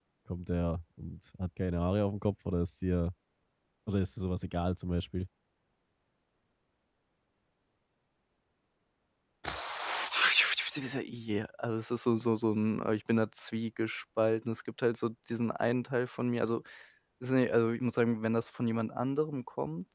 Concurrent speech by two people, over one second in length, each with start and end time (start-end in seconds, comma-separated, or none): none